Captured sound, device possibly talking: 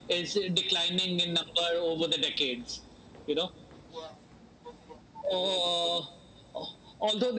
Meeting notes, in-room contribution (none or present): none